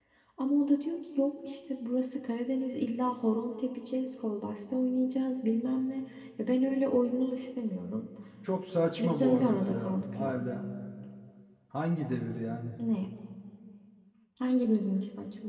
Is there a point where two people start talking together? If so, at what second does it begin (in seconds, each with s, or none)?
9.0 s